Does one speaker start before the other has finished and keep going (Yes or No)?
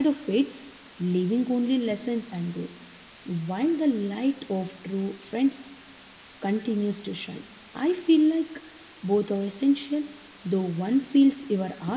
No